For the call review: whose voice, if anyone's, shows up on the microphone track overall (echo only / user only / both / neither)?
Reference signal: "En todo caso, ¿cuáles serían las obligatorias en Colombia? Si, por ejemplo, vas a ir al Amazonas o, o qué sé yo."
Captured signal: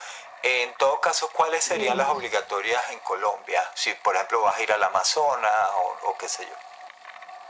both